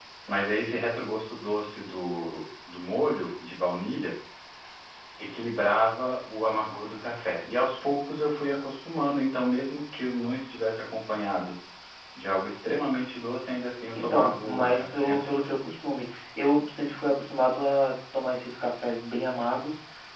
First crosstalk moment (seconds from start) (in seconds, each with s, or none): 13.9 s